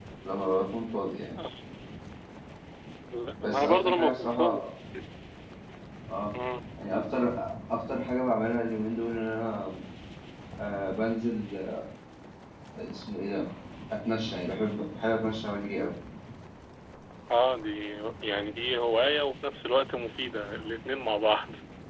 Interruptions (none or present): present